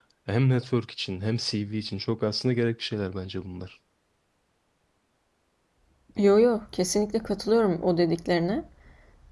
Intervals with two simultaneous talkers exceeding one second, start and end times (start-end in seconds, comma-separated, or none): none